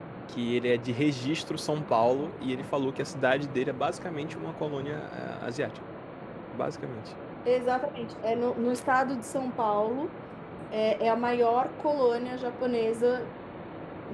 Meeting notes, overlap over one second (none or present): none